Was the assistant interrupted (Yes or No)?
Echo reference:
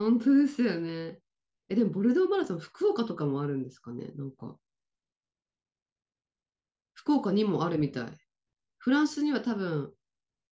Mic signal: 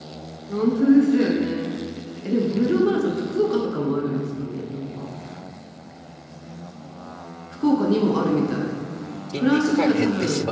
Yes